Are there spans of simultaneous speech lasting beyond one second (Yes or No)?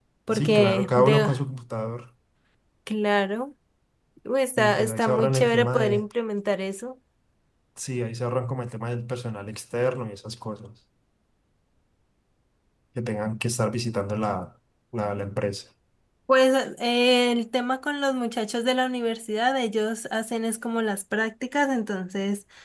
Yes